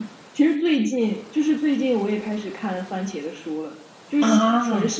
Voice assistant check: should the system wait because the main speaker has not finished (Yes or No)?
Yes